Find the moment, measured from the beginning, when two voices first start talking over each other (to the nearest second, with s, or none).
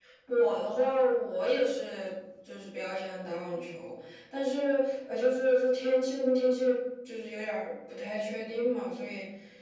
none